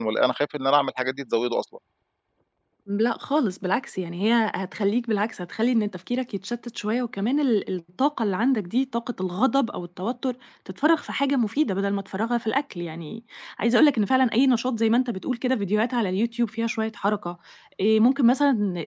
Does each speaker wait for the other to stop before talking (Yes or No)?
Yes